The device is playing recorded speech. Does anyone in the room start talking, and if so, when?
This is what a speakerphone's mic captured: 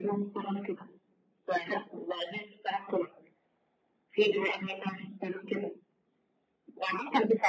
none

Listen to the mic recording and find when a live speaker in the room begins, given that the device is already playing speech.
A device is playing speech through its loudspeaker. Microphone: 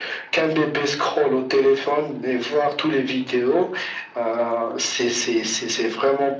none

